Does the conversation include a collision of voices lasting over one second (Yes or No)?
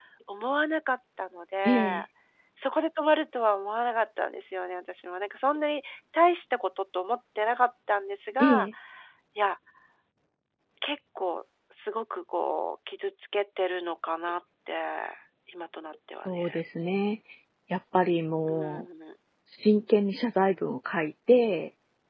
No